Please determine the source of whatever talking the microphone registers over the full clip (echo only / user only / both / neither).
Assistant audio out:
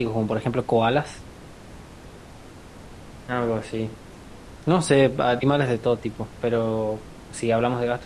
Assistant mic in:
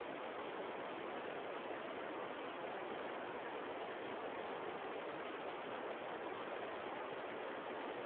neither